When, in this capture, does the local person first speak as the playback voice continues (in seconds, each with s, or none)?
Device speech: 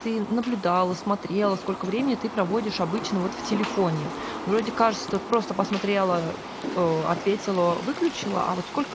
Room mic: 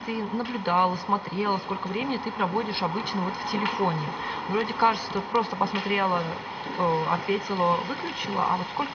none